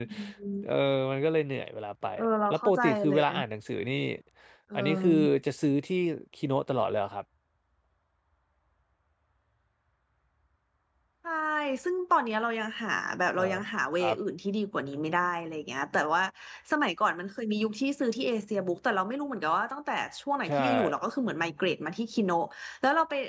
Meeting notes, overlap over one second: present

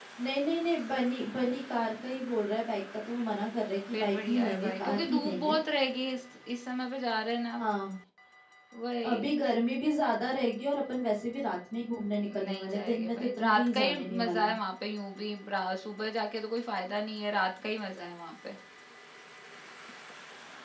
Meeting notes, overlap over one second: present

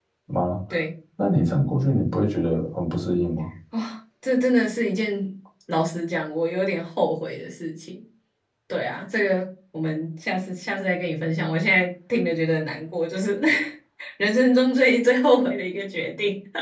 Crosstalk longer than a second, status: none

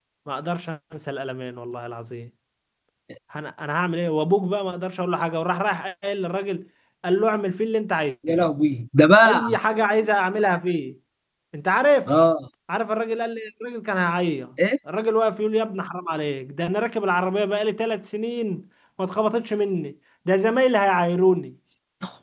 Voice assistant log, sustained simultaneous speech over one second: none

